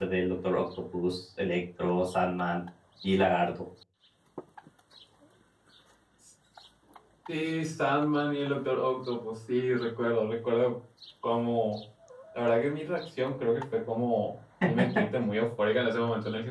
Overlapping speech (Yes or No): No